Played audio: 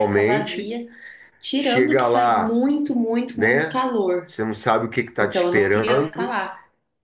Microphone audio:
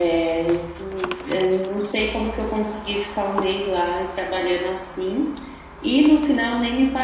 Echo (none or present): none